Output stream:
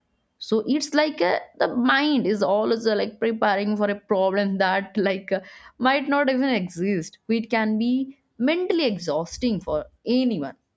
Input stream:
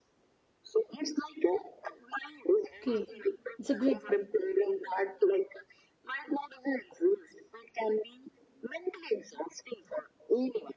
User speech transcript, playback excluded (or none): Okay. It's a great topic.